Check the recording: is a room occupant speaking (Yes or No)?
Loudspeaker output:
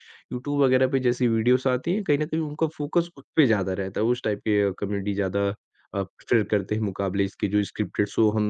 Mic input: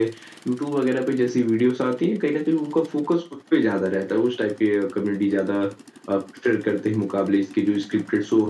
No